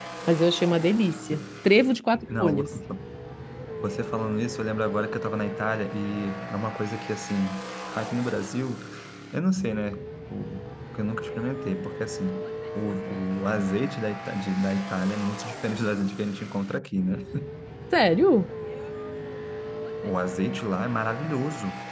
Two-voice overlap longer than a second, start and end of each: none

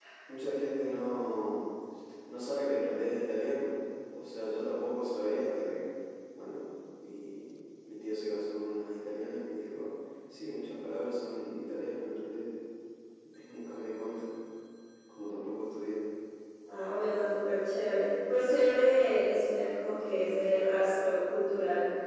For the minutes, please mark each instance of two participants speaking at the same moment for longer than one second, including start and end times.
none

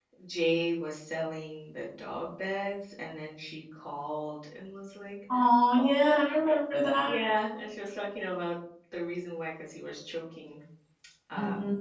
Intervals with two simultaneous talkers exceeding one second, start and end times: 5.8-7.2

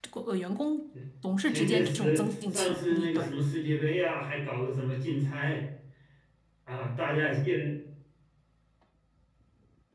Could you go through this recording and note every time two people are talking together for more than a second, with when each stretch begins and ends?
1.5-3.3

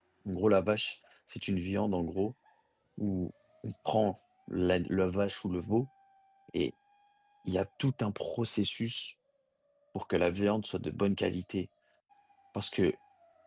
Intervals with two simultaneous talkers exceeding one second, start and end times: none

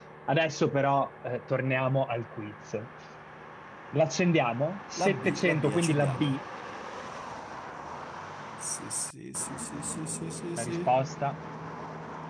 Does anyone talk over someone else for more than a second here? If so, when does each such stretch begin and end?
5.0-6.3

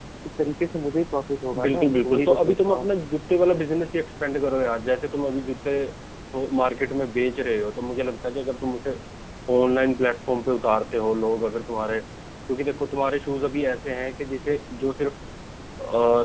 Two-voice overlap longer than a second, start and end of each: 1.6-2.9

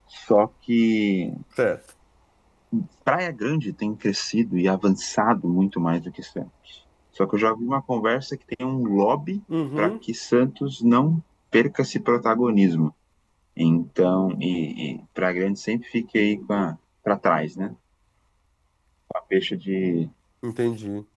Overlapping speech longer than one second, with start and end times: none

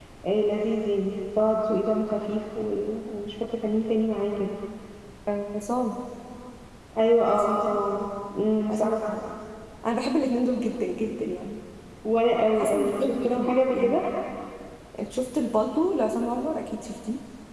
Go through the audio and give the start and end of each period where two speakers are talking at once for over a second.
12.6-14.0

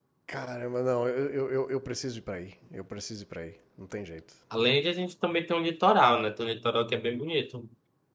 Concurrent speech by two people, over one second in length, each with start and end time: none

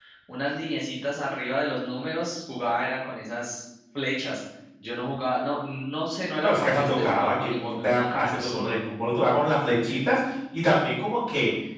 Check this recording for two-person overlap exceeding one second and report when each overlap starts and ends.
6.4-8.8

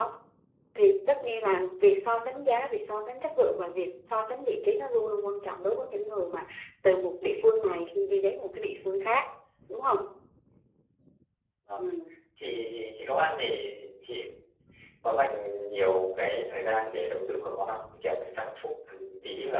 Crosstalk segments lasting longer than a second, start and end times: none

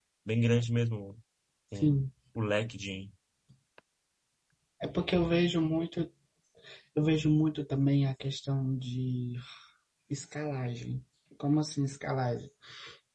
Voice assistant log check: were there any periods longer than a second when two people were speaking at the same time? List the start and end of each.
none

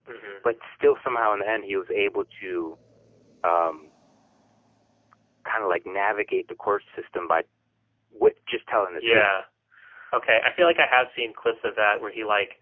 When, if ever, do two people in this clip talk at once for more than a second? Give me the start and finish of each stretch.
none

